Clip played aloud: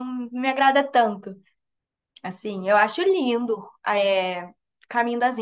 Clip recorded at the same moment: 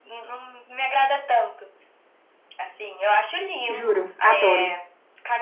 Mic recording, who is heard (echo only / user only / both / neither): both